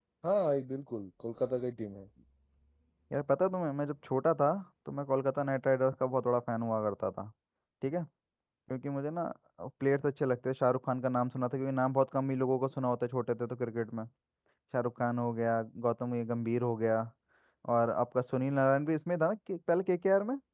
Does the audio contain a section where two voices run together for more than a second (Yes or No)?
No